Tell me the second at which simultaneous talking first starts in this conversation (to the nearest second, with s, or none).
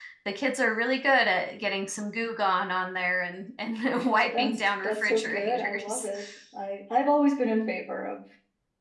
4 s